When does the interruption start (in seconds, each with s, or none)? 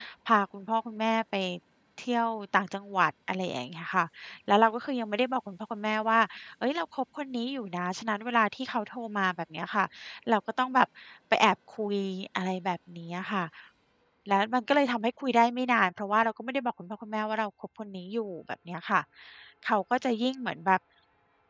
none